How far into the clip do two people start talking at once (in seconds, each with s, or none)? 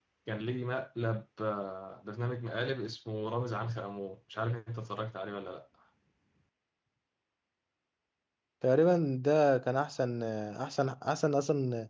none